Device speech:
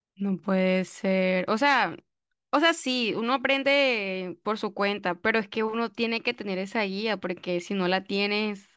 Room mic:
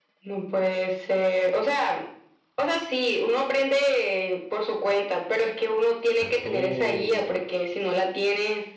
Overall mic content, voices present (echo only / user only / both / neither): both